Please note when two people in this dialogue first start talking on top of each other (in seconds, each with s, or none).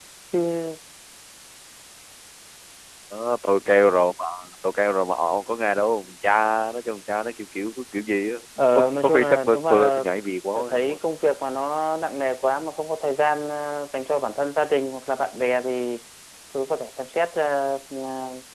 8.8 s